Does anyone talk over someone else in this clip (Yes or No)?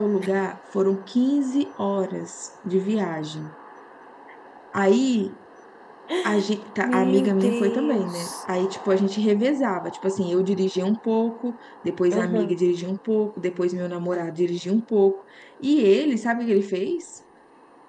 Yes